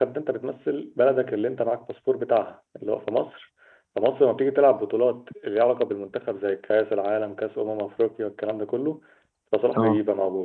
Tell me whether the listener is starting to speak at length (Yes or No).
No